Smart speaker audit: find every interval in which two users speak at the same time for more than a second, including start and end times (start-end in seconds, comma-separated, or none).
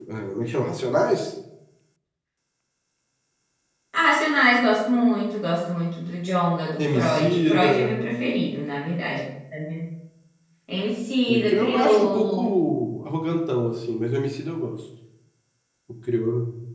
6.8-8.0, 11.3-12.5